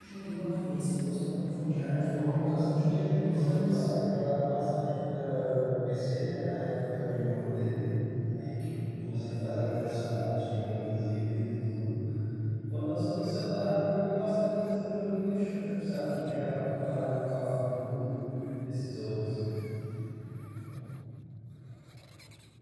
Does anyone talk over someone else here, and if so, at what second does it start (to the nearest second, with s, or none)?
2 s